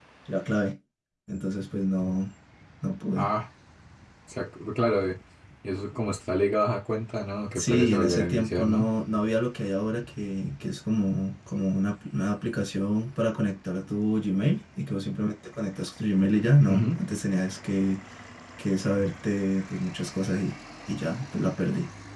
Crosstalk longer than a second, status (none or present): present